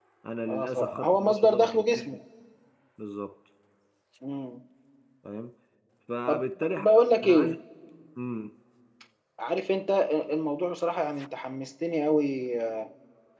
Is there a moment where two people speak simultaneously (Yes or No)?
Yes